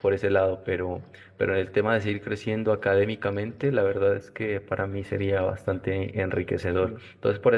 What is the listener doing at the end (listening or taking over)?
listening